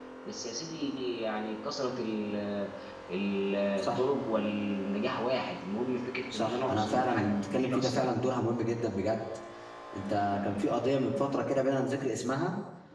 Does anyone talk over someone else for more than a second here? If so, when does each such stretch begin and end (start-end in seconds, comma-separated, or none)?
6.3-8.1